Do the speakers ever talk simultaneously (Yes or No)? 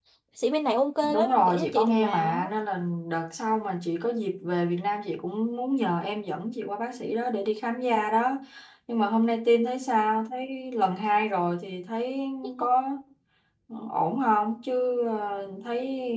Yes